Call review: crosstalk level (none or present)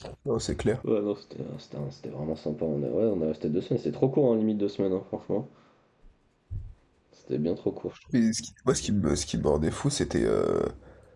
none